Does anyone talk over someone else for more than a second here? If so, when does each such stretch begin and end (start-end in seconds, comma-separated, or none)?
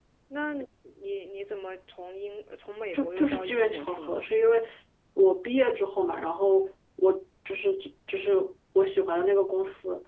2.9-4.3